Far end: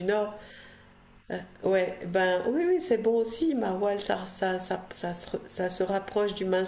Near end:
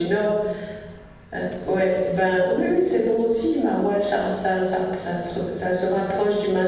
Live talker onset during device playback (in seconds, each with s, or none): none